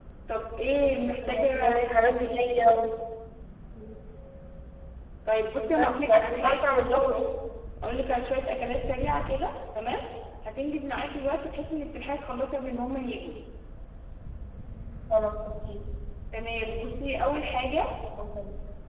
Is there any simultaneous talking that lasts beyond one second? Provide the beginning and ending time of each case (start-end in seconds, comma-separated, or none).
5.8-7.0